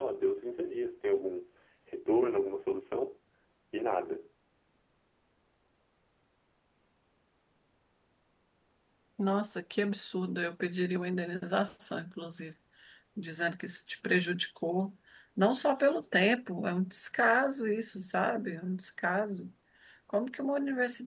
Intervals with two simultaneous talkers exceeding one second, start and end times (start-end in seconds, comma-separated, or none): none